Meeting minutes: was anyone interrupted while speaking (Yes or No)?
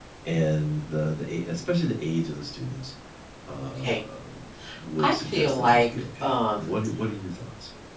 Yes